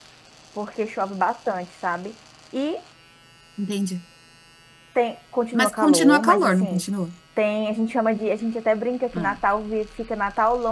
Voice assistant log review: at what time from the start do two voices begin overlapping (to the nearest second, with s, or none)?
6 s